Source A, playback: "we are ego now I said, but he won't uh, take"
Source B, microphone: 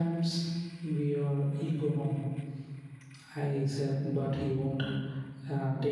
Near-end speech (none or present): none